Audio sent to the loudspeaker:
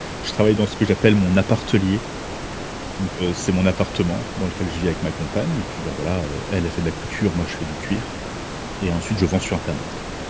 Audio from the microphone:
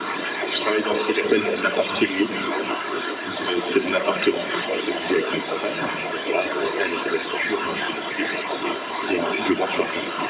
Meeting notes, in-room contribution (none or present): none